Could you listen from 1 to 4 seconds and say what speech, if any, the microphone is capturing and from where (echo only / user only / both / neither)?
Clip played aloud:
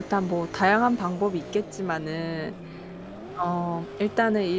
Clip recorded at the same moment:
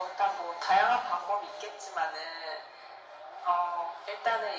echo only